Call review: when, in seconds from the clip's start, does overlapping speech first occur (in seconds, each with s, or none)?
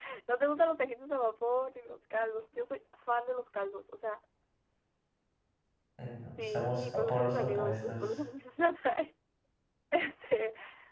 6.4 s